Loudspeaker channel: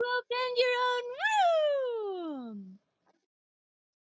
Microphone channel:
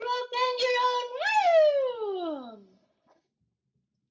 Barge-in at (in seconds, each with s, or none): none